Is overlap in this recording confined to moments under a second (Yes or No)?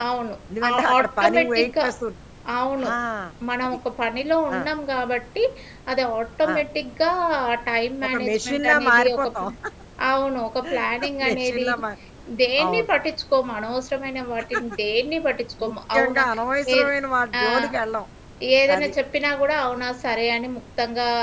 No